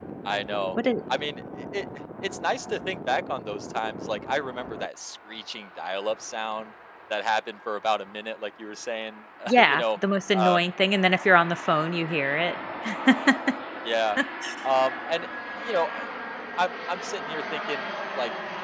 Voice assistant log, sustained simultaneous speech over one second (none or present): none